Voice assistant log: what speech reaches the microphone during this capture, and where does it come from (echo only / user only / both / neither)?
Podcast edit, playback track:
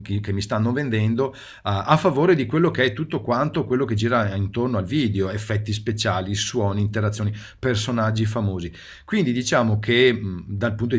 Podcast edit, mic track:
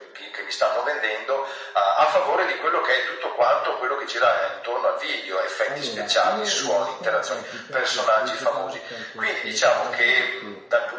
both